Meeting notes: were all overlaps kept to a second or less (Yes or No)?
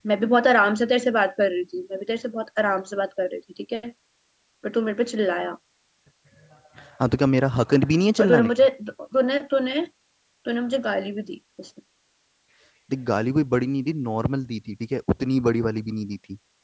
Yes